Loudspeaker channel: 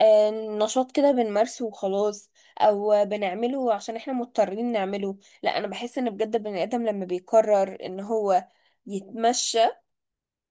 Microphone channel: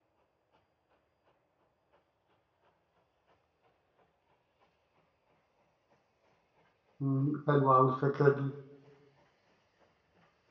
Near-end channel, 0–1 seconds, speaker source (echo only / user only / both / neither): neither